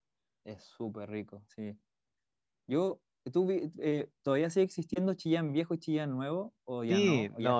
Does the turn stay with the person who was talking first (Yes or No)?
No